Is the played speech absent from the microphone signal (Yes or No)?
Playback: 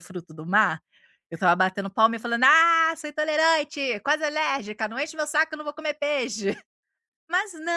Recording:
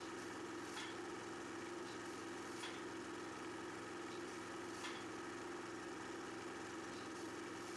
Yes